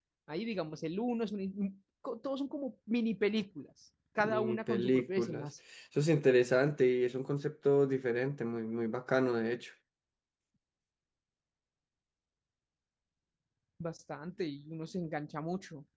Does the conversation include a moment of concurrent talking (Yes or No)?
Yes